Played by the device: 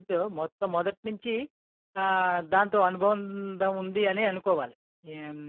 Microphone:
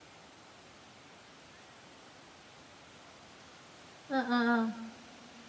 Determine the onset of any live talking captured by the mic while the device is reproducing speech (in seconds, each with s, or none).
4.1 s